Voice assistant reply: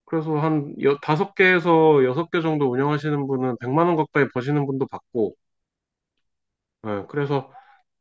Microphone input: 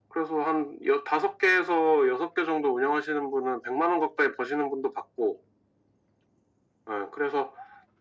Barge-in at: none

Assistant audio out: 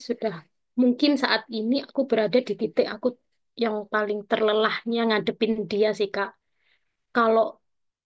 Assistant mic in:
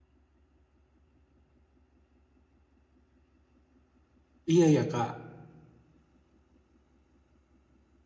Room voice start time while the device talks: 5 s

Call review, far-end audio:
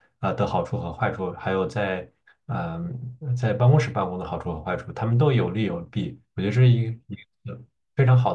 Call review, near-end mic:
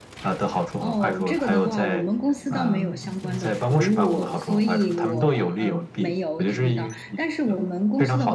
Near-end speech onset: 1 s

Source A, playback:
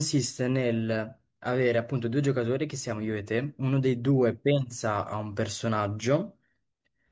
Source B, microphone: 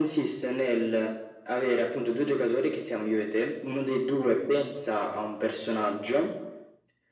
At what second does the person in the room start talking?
none

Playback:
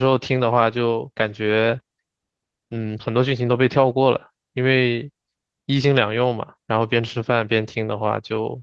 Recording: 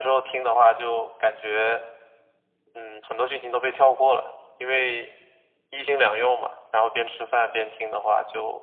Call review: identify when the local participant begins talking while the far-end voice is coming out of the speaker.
none

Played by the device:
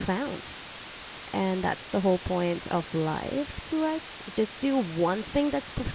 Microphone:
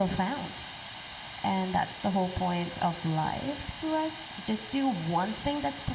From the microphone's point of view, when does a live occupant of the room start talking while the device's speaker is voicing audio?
none

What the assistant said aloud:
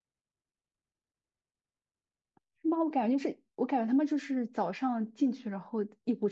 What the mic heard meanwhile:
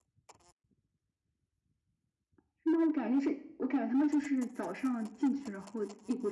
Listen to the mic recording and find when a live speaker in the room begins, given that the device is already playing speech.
none

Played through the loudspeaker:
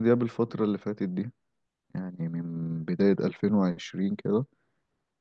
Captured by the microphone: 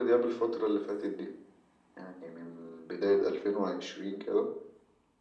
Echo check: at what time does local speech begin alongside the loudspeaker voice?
none

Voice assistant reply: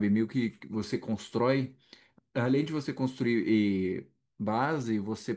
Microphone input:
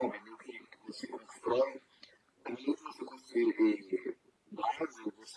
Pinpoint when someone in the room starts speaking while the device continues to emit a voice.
none

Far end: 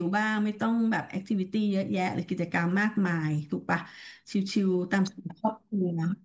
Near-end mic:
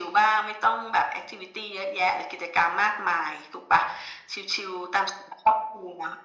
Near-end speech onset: none

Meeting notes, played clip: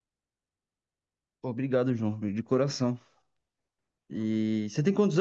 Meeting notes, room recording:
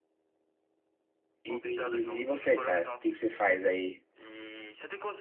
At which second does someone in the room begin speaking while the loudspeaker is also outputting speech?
1 s

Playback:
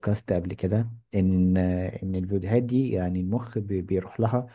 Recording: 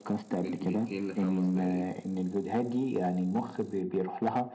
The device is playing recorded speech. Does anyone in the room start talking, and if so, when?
0 s

